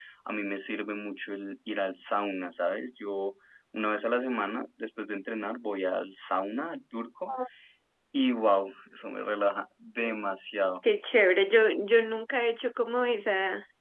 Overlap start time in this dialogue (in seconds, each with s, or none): none